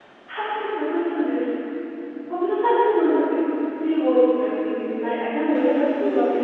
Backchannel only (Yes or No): Yes